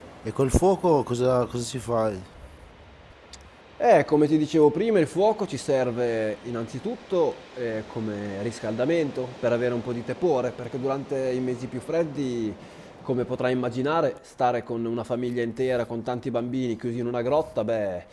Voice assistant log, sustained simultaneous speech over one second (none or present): none